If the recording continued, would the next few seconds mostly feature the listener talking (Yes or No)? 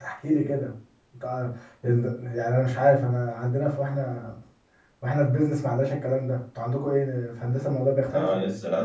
Yes